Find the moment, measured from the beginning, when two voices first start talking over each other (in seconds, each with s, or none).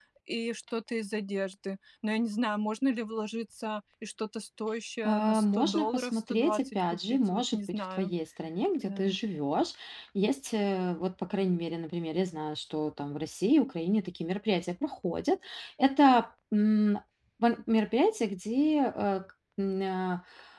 5.0 s